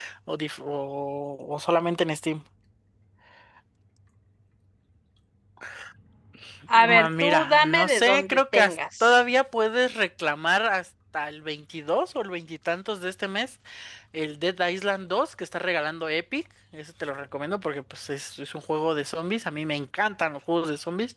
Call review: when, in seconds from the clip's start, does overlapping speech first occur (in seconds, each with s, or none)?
6.9 s